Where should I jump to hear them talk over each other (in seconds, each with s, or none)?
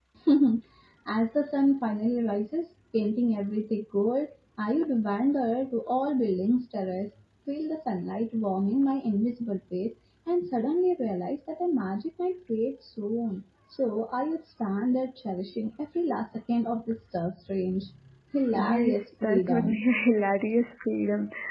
18.5 s